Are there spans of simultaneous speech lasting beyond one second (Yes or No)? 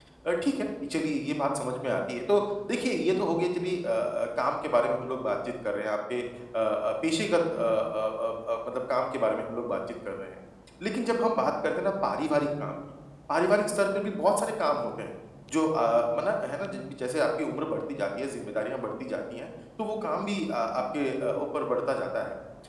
No